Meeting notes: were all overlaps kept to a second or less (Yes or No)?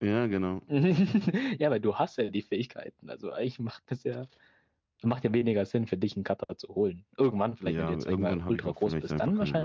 No